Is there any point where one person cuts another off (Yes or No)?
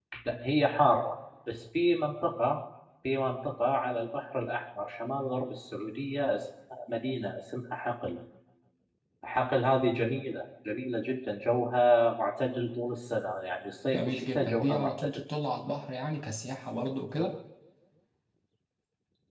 Yes